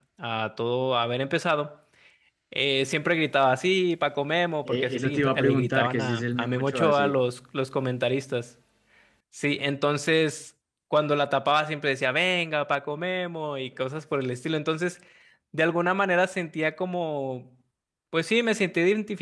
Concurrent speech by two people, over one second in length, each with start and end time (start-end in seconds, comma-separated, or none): 4.7-7.1